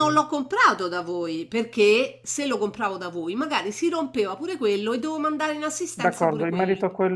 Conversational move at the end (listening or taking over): taking over